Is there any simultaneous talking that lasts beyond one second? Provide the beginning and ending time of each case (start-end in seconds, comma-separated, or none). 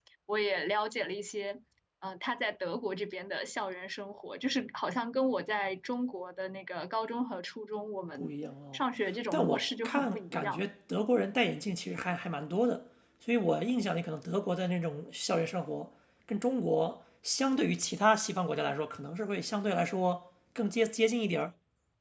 9.3-10.6